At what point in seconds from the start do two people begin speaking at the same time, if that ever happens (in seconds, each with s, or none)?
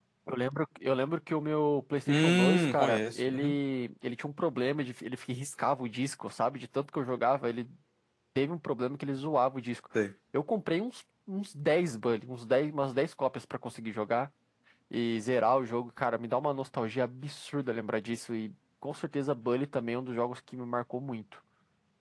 2.1 s